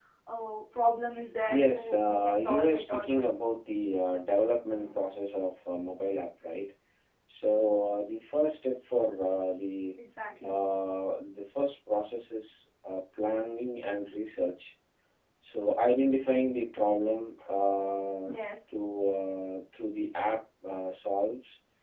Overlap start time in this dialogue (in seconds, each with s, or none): 1.5 s